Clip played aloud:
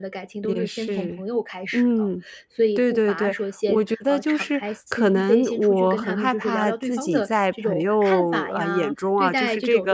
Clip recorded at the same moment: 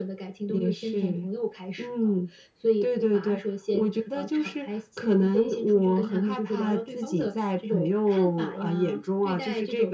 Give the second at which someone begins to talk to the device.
none

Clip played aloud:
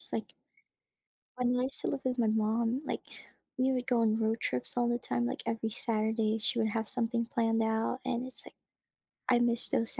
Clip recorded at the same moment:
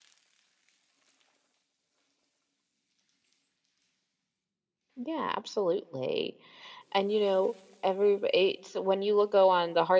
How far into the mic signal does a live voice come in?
5 s

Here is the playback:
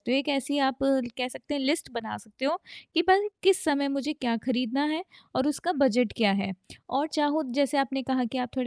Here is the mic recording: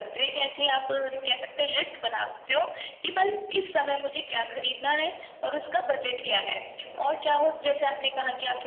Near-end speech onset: none

